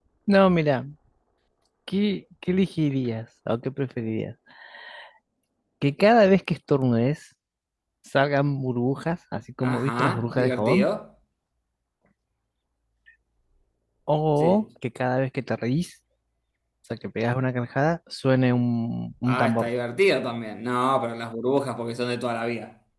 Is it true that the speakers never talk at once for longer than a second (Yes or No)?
No